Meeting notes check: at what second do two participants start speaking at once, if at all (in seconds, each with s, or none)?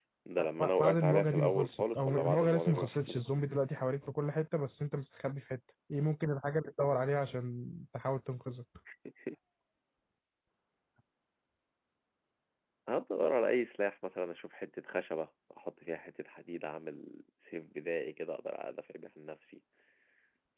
0.6 s